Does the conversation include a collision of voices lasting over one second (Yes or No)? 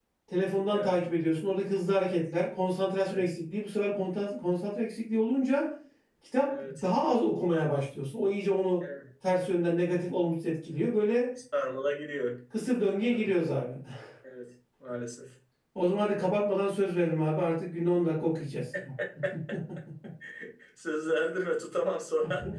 No